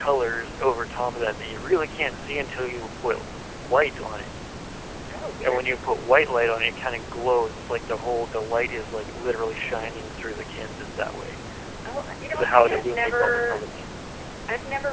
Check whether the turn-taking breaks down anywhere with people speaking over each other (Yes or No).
Yes